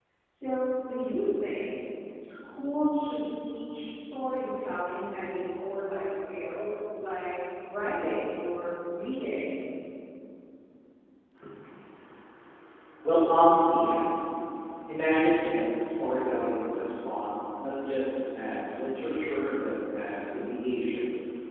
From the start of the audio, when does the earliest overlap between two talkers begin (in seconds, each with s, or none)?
none